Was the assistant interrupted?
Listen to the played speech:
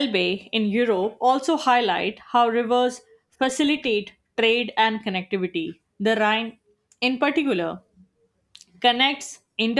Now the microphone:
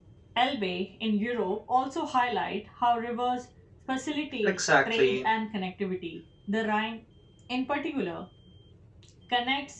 Yes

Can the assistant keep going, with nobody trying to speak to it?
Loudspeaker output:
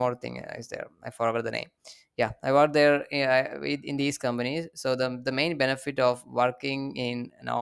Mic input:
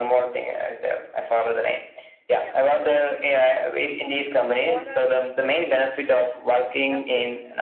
No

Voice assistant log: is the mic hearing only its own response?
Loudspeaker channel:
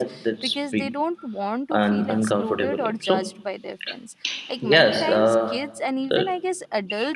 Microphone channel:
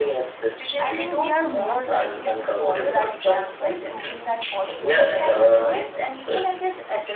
No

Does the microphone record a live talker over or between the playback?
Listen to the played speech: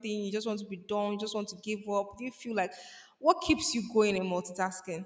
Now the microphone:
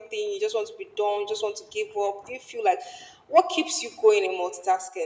No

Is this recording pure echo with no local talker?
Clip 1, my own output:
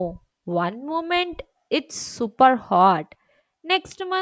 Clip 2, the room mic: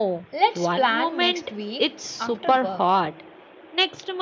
No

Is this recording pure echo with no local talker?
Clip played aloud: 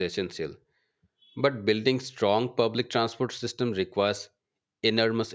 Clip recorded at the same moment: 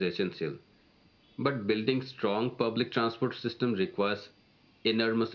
Yes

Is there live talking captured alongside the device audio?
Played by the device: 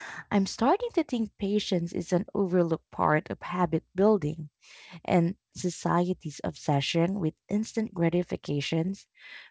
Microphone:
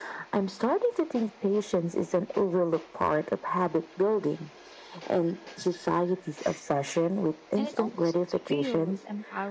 Yes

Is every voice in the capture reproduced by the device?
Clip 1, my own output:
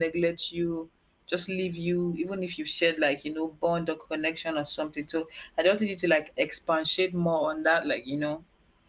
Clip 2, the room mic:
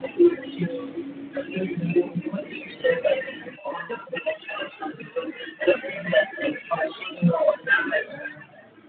Yes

